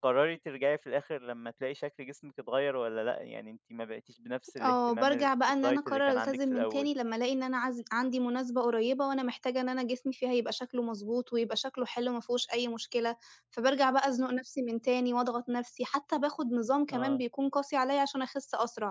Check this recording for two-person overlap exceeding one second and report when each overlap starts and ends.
4.6-6.9

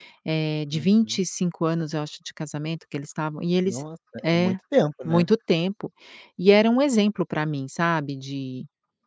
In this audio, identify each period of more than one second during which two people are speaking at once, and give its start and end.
none

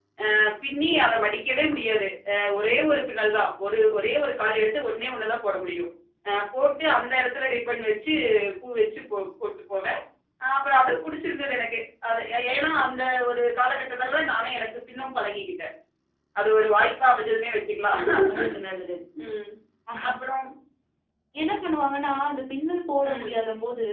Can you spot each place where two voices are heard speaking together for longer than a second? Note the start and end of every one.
none

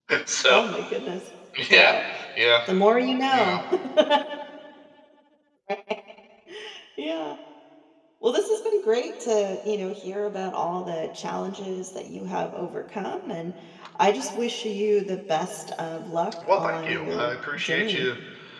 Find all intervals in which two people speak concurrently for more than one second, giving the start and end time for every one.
16.5-18.1

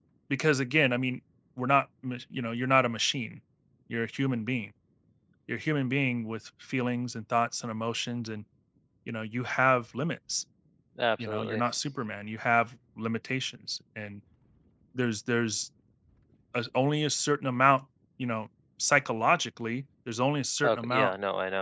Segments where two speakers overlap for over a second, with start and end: none

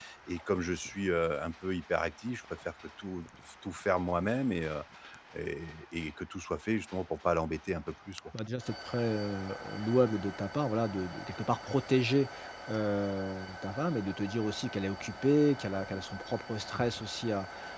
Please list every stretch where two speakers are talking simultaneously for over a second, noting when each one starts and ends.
none

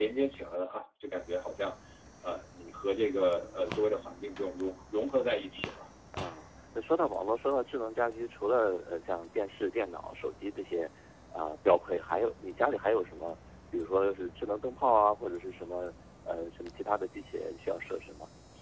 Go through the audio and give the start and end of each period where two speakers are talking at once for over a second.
none

